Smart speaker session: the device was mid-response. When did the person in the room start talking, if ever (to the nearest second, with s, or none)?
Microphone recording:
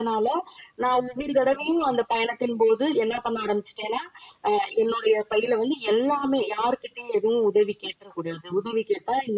none